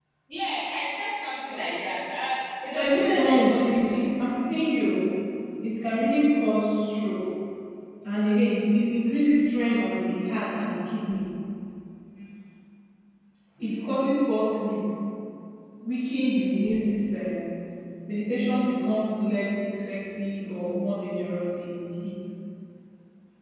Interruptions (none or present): present